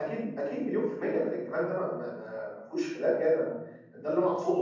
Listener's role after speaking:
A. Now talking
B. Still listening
B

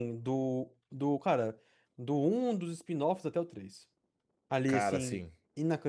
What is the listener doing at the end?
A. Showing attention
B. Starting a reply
A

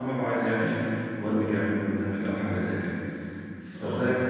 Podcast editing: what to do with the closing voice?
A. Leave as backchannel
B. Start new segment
A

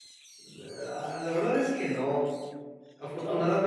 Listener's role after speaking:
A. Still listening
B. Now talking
A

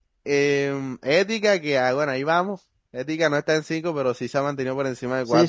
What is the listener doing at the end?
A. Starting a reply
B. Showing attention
A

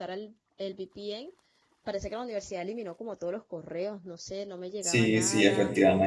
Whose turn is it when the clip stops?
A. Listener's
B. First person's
A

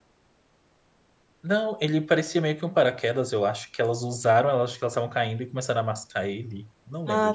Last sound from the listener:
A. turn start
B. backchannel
A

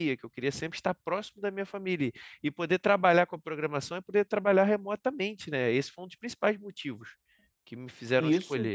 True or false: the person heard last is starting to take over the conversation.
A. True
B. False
A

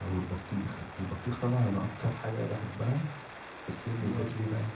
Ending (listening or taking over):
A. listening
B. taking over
A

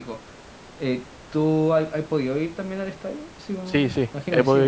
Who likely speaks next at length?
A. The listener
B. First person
A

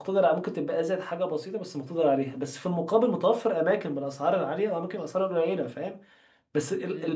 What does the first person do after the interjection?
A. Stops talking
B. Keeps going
A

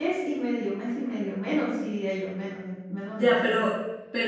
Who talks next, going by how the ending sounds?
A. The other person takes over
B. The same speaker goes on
A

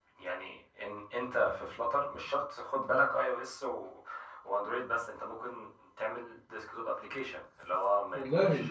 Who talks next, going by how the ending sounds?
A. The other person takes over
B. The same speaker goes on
B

